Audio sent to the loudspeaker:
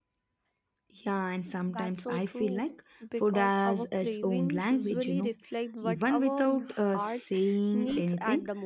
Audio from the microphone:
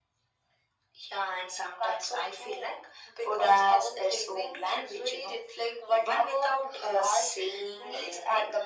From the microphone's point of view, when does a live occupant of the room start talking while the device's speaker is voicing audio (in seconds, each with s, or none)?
none